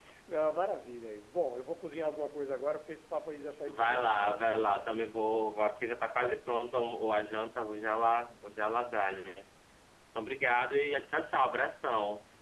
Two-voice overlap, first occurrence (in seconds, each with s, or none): 3.7 s